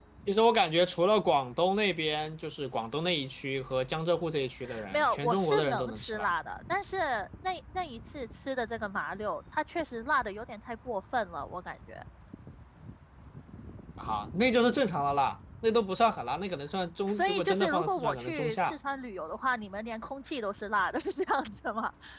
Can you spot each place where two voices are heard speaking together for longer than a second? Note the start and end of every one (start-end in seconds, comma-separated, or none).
4.9-6.3, 17.1-18.8